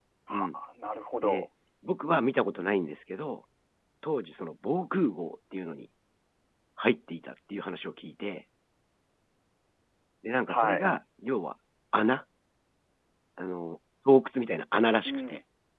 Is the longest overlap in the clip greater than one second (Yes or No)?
No